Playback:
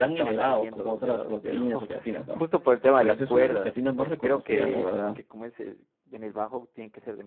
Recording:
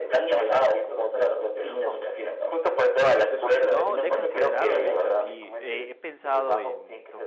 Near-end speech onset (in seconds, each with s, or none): 3.6 s